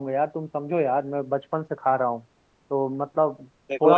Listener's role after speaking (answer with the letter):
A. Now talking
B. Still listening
B